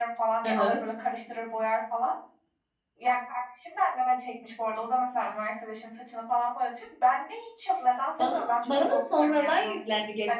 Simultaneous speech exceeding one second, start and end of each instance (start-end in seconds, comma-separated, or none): 8.2-9.8